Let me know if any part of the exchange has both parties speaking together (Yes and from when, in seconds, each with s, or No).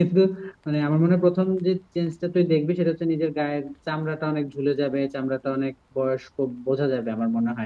No